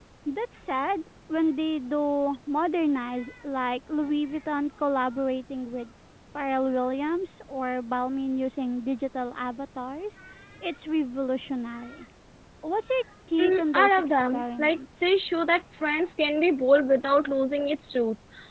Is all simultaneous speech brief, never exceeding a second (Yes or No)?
No